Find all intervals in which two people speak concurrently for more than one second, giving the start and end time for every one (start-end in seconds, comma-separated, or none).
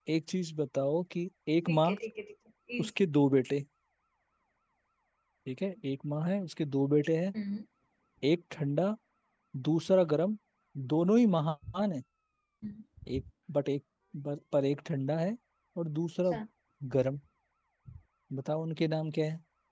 none